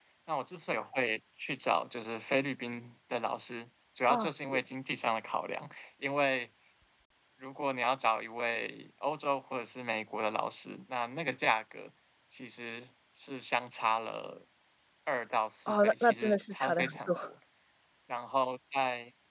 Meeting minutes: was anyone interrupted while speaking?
Yes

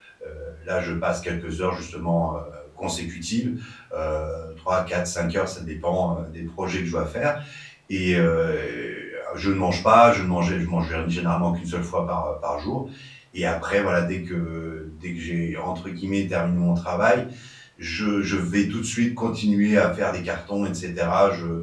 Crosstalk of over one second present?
No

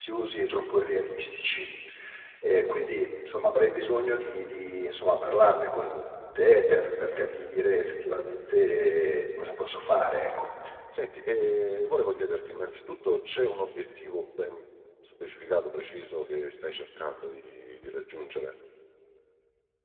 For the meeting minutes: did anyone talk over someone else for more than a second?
No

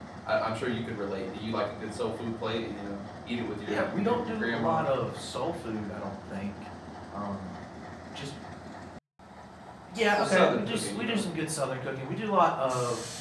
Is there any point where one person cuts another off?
Yes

